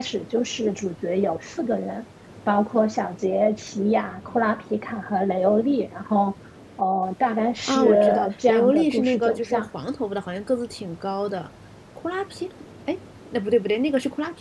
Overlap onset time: 8 s

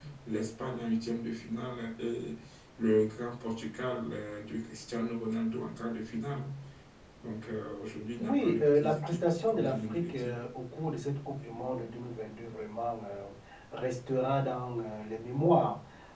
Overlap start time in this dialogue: 8 s

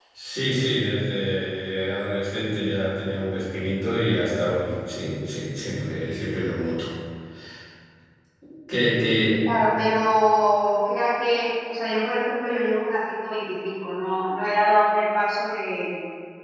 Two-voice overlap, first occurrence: none

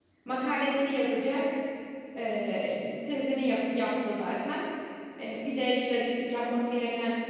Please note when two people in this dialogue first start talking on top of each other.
none

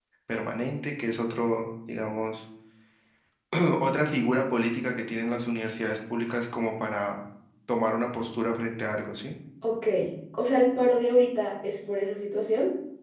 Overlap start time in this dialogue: none

